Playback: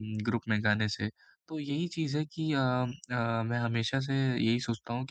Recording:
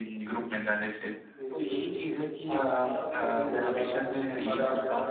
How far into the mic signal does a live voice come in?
1.3 s

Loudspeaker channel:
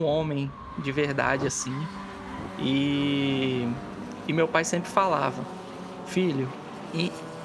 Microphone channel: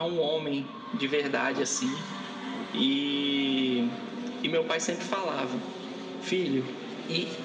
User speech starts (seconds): none

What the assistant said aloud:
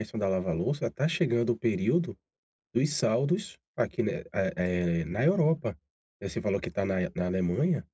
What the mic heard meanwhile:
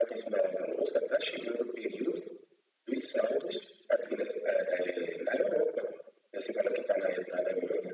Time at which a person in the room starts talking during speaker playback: none

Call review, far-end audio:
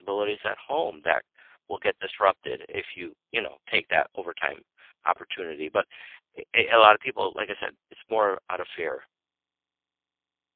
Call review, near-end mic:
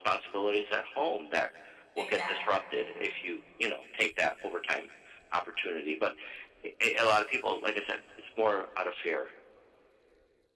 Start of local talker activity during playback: 2.0 s

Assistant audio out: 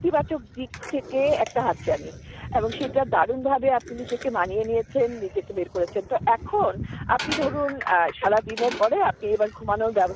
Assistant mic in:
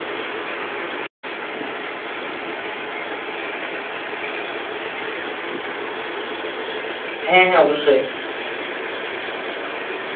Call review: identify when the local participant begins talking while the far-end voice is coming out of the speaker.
7.3 s

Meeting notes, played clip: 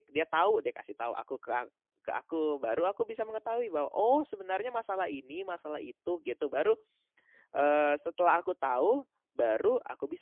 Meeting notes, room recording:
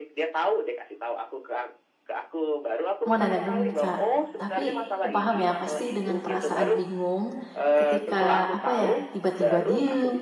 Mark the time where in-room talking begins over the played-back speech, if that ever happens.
3.1 s

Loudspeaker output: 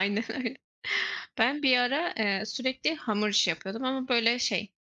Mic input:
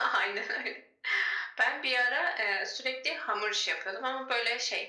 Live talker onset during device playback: none

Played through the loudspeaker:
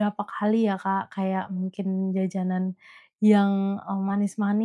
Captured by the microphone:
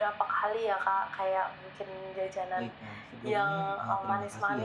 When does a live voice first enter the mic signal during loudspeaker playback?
2.6 s

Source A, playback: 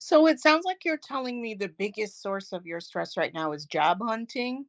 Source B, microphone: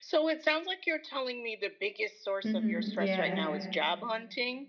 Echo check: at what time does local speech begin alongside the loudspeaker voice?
2.4 s

